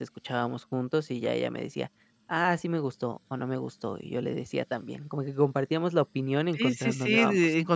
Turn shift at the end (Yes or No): Yes